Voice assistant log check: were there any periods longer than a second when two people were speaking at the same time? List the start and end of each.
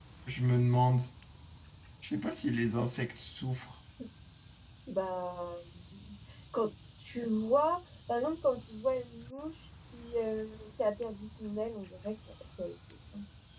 none

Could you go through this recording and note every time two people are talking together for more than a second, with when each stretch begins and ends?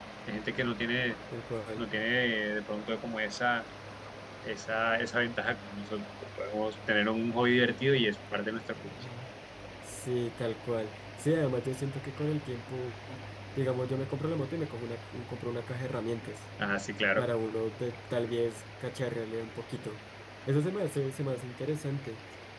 none

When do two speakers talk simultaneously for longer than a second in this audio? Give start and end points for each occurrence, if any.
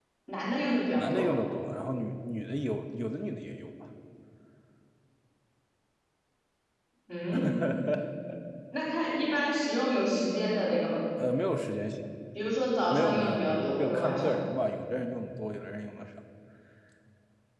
12.9-14.3

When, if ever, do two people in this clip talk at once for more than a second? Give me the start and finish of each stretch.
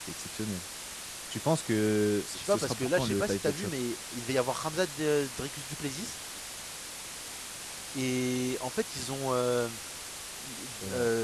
2.3-3.7

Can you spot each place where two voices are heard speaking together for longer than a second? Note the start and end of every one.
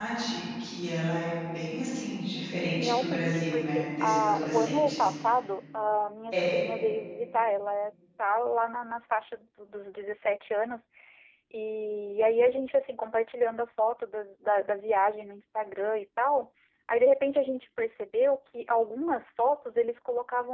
2.7-5.1

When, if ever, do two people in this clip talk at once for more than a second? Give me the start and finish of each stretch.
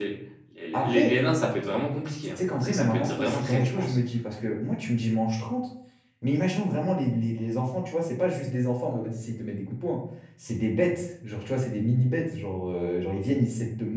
2.4-4.0

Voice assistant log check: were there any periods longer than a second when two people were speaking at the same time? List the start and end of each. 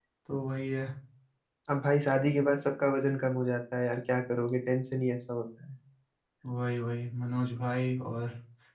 none

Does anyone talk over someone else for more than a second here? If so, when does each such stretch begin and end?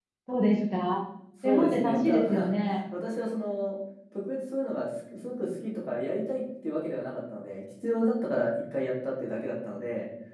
1.4-2.8

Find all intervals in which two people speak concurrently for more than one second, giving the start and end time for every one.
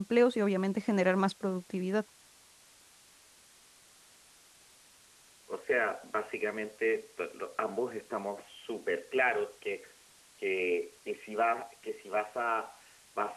none

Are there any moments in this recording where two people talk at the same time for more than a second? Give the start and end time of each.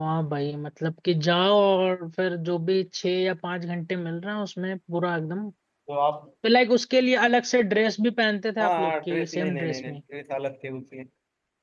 8.6-10.0

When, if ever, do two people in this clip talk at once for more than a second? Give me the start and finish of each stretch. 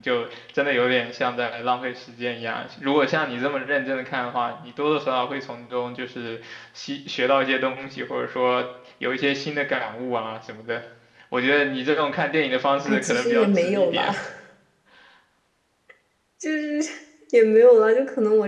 12.8-14.1

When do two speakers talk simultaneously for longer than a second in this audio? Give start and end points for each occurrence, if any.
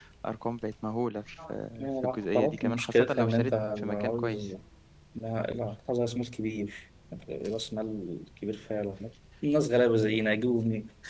2.0-4.5

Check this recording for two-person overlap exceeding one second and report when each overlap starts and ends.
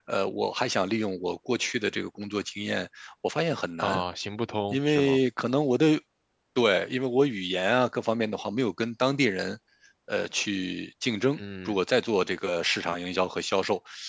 none

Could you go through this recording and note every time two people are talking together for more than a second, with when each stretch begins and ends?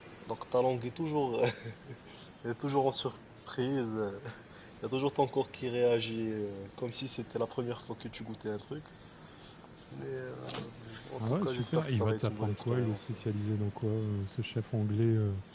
11.2-13.1

